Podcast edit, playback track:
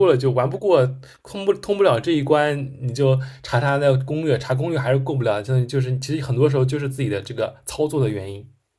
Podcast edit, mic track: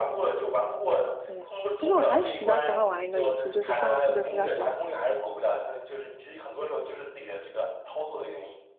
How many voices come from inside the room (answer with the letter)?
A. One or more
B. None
A